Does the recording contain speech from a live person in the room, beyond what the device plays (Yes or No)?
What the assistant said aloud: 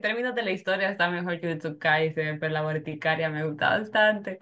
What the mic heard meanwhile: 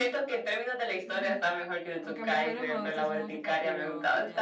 Yes